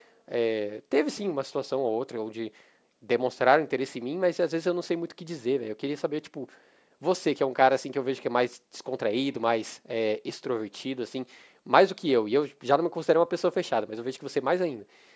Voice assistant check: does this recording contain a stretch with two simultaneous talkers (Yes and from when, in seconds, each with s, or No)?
No